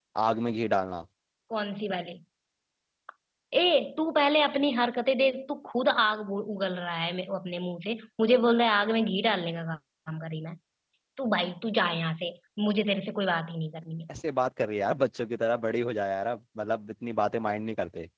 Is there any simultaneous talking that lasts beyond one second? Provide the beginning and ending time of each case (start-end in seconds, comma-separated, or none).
none